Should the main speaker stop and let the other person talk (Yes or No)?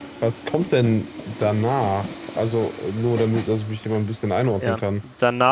Yes